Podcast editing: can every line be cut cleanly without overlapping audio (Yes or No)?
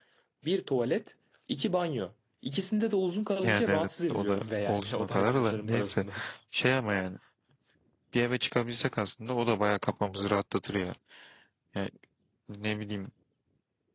No